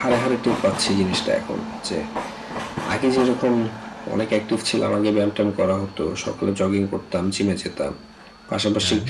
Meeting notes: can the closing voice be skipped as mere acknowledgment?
Yes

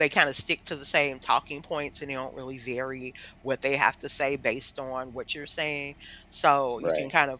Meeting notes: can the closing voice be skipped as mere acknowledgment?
Yes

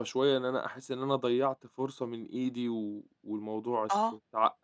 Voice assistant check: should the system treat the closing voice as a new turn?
No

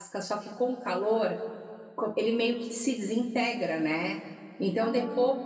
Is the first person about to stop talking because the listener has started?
No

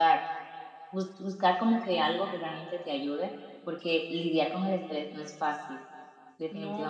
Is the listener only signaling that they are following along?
No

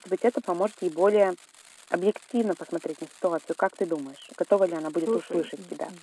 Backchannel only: No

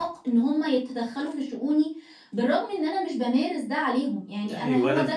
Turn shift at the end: Yes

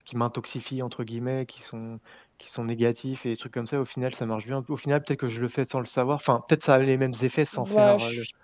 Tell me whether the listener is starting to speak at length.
Yes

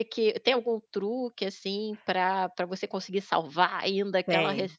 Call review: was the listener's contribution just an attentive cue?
Yes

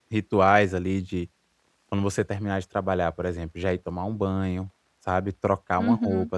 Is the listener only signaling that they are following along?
Yes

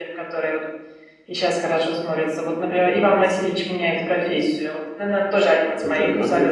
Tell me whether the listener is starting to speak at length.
Yes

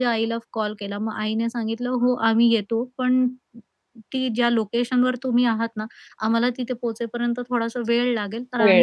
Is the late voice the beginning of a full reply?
No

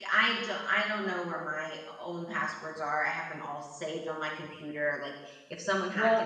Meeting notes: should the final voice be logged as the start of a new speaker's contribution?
No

